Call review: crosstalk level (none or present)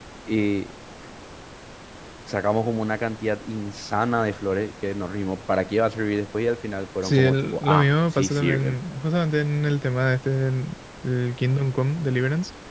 present